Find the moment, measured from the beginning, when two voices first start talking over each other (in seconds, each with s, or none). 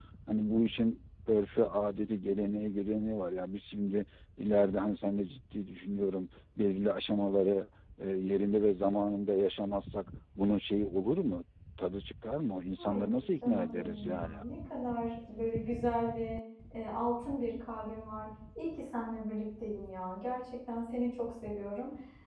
12.8 s